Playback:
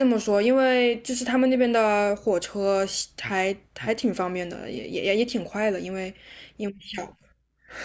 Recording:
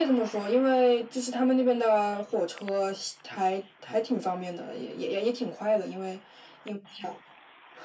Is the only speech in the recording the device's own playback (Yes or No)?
Yes